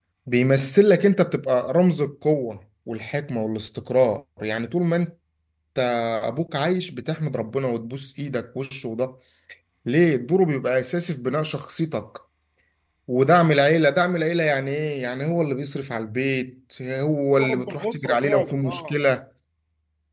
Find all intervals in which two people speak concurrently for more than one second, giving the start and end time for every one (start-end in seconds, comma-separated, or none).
17.3-19.0